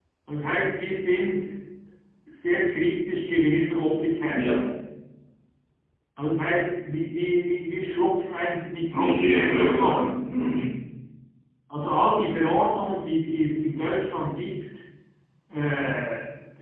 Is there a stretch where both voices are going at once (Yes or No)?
Yes